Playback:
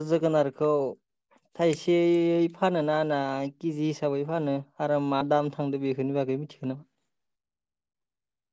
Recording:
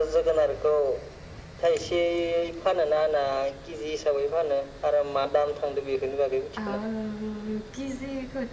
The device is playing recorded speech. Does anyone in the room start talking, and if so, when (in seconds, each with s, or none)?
6.6 s